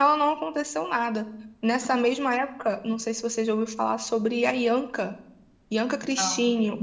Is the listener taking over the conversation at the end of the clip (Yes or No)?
No